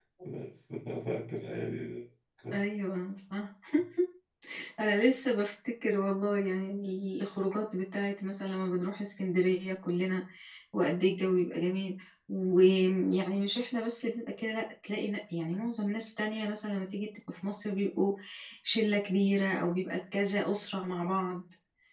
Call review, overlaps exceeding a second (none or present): none